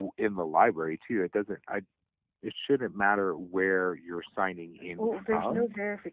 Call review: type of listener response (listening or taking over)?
taking over